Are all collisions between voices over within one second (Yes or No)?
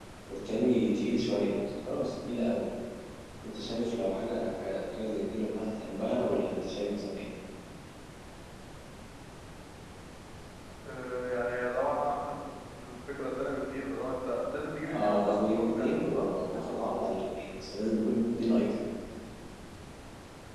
No